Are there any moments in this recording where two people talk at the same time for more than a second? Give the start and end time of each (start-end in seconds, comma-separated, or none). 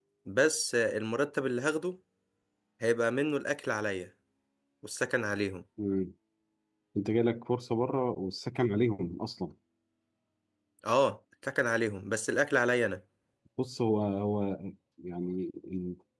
none